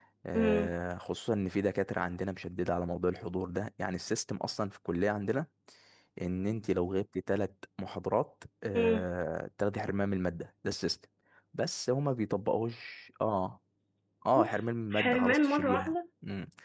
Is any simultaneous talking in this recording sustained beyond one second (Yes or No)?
Yes